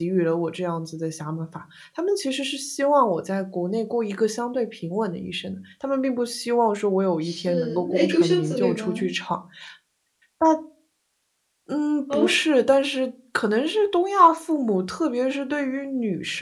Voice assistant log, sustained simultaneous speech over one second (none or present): present